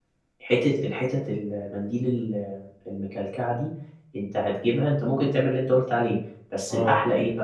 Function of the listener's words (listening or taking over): listening